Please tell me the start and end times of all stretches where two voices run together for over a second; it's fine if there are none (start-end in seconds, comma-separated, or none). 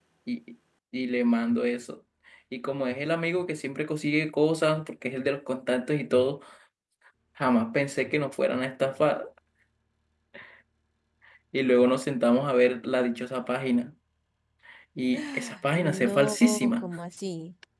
15.1-16.9